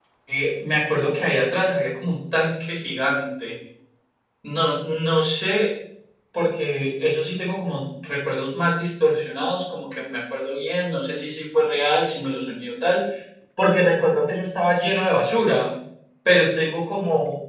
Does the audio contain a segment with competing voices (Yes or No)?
No